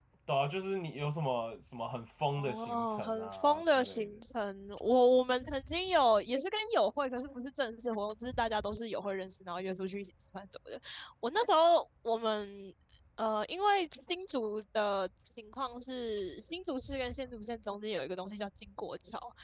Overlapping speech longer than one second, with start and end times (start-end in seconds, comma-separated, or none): 2.3-4.2